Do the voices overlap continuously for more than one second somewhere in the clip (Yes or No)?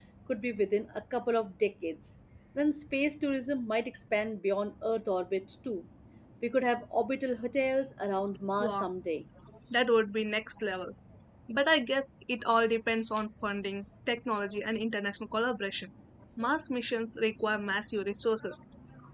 No